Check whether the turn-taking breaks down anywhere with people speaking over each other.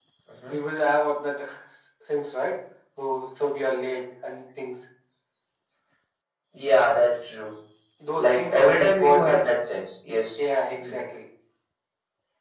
Yes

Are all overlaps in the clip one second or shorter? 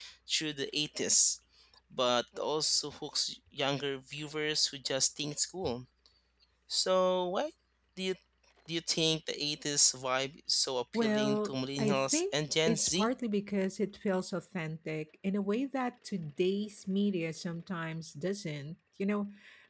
No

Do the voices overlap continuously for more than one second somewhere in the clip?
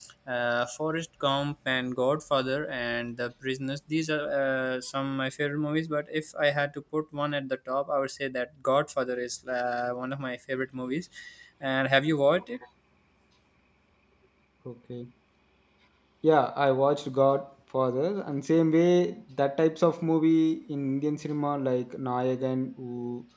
No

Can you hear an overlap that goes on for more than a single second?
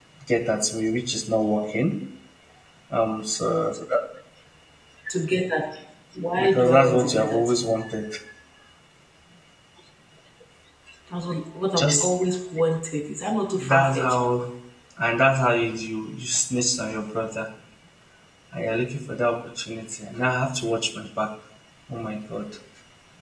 Yes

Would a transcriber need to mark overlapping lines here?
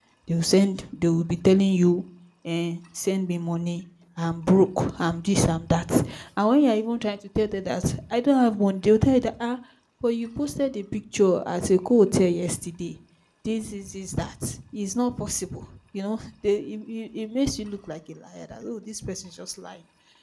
No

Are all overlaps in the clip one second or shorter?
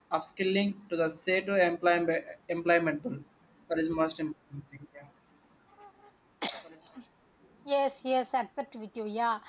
Yes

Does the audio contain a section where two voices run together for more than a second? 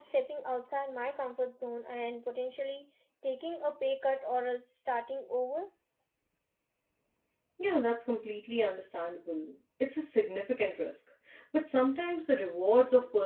No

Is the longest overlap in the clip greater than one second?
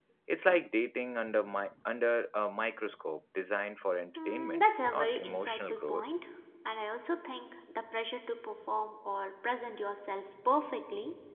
Yes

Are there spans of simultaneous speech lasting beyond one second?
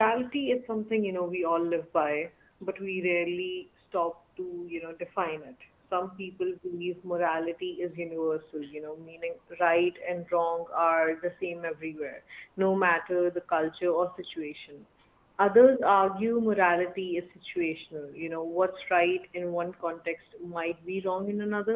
No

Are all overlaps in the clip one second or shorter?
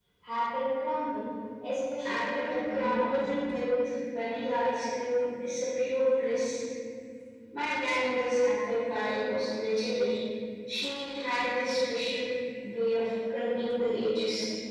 No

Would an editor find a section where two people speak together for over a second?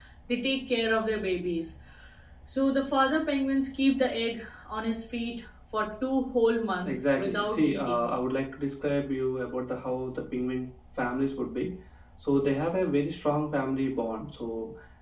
Yes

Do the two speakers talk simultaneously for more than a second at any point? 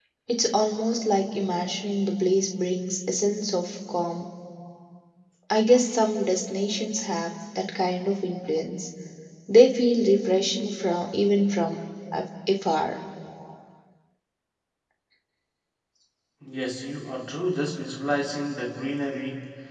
No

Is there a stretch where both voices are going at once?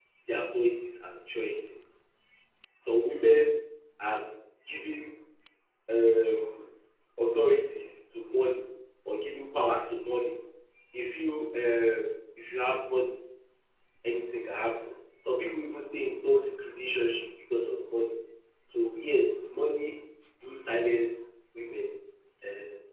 No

